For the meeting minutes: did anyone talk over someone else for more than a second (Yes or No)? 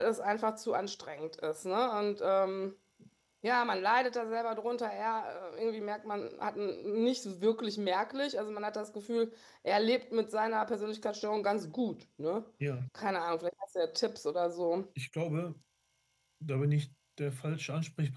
No